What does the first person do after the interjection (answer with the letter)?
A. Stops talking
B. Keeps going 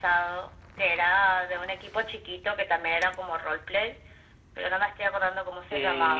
A